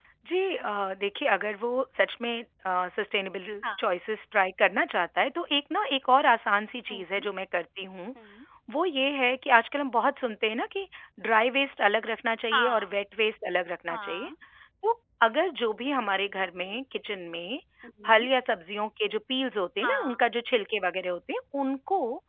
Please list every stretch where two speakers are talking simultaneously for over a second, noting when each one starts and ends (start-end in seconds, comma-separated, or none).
none